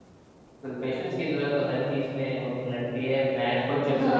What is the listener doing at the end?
listening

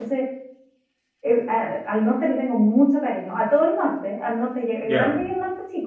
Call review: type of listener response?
listening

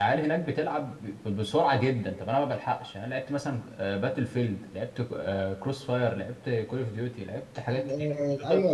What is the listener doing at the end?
taking over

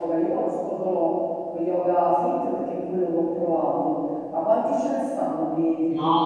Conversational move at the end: taking over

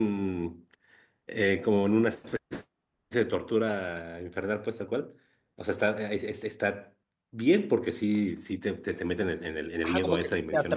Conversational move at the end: taking over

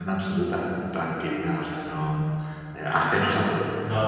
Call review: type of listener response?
taking over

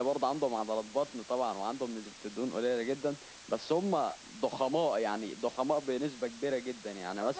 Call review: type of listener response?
taking over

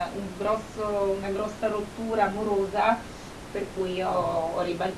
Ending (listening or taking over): listening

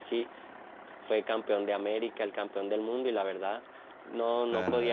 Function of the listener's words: taking over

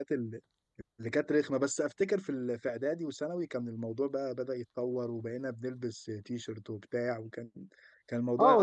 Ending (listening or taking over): taking over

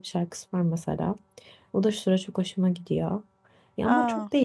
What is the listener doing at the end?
listening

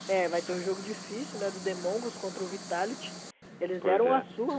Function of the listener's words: listening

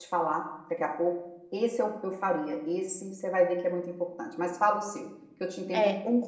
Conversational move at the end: taking over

